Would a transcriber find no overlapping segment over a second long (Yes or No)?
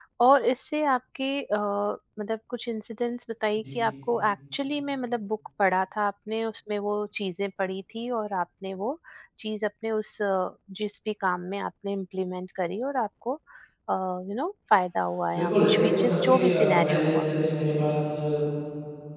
No